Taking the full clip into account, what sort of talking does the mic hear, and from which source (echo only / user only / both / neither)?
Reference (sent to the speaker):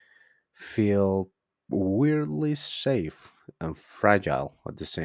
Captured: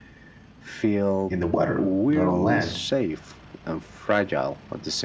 both